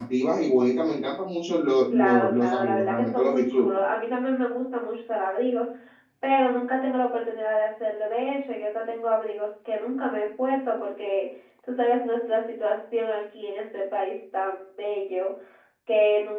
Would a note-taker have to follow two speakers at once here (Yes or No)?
Yes